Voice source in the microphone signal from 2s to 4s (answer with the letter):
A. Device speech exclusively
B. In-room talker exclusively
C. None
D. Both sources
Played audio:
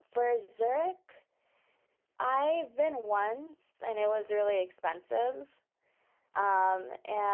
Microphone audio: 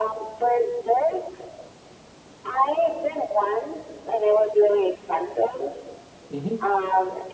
A